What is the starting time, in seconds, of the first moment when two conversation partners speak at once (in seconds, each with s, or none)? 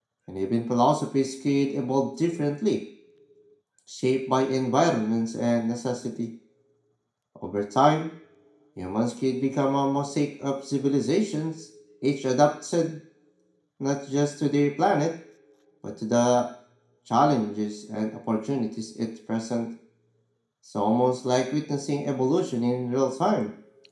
none